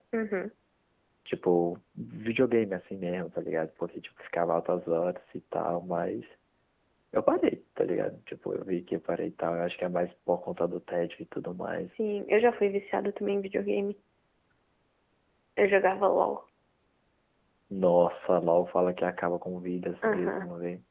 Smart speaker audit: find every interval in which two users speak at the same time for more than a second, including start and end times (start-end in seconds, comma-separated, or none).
none